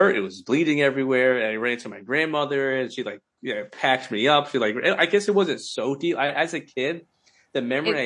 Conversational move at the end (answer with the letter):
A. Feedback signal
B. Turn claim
A